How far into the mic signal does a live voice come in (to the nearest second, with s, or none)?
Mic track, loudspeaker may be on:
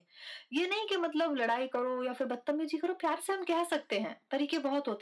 none